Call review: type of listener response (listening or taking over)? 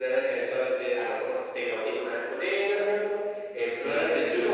listening